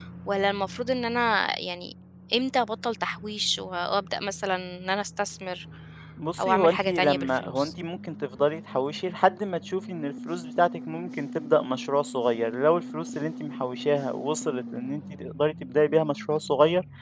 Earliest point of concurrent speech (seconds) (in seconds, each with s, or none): 6.4 s